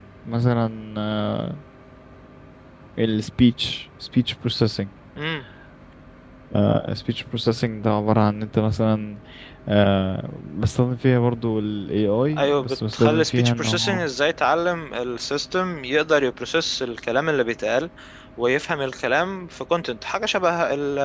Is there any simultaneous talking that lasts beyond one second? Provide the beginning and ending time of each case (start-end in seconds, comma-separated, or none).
12.4-14.0